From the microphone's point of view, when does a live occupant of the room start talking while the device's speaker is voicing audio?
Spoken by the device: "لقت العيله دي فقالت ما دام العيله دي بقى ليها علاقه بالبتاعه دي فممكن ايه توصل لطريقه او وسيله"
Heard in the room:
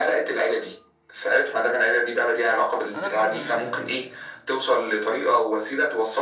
2.9 s

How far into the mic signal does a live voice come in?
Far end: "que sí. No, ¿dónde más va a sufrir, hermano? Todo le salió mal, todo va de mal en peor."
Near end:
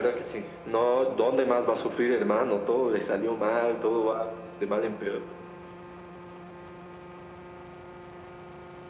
none

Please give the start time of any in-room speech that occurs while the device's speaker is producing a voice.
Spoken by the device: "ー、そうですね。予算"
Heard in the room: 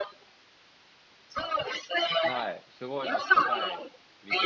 2.2 s

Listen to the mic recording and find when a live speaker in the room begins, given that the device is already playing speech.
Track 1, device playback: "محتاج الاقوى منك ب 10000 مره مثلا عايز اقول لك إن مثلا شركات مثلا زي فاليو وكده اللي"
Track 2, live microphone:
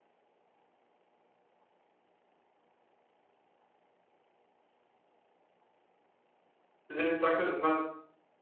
6.9 s

